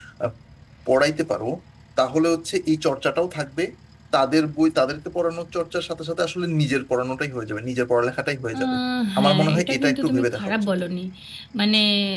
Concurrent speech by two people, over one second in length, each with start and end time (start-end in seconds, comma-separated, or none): 9.2-10.6